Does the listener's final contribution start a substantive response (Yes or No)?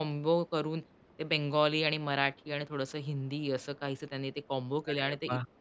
Yes